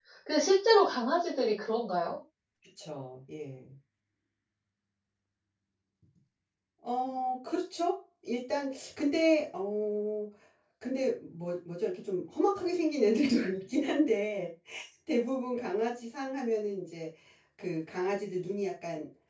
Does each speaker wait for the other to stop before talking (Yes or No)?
Yes